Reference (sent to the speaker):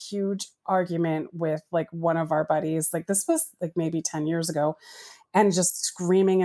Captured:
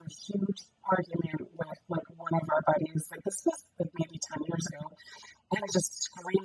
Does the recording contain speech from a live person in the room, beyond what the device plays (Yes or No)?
No